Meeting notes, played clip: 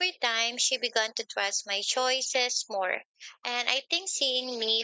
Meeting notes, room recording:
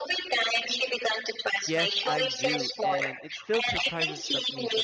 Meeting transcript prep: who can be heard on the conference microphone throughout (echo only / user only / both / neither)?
both